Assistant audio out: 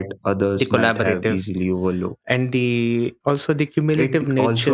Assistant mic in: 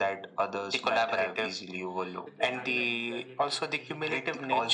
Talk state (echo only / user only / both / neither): both